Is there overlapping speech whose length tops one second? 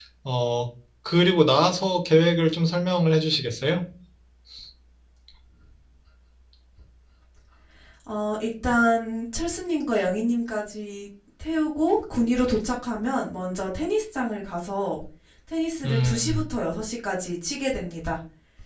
No

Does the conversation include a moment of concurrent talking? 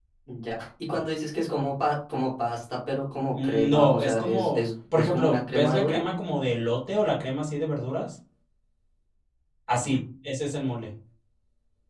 Yes, from 3.3 s

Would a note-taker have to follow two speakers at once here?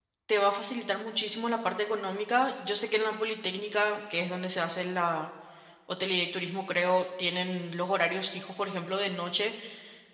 No

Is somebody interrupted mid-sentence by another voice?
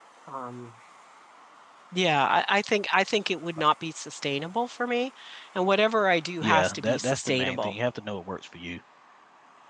Yes, from 6.4 s

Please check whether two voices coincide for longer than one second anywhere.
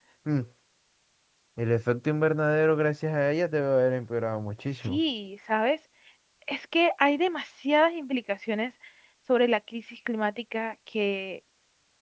No

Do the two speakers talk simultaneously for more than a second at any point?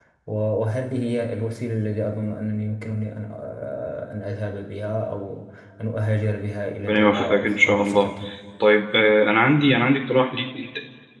Yes, from 6.9 s

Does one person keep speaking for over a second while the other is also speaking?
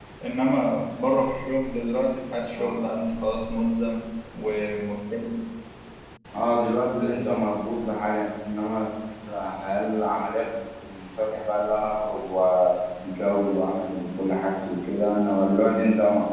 No

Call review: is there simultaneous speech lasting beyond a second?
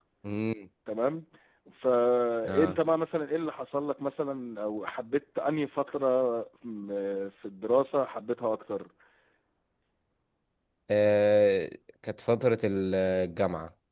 No

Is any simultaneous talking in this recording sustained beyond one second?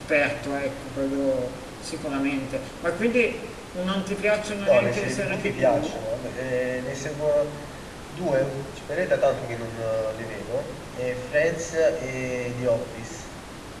Yes, from 4.7 s

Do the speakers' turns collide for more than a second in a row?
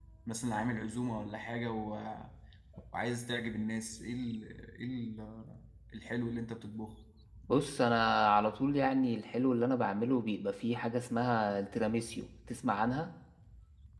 No

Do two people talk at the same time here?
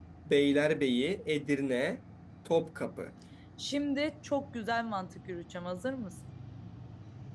No

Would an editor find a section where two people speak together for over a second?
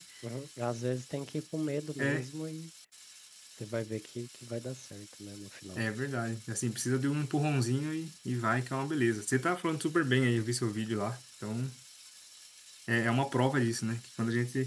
No

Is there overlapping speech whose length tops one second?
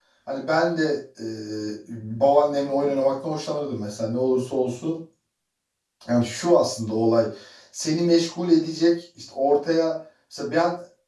No

